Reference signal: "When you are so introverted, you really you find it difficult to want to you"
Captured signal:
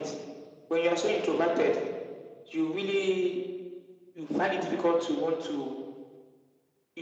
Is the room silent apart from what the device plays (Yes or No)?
Yes